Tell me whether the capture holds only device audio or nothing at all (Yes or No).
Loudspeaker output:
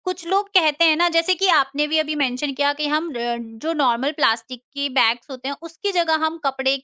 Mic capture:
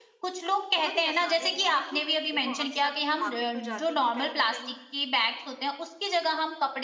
No